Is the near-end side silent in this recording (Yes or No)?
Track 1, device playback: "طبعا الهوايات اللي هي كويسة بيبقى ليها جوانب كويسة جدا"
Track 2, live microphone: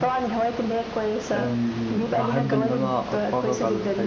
No